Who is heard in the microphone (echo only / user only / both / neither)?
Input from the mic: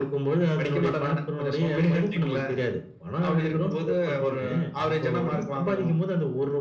echo only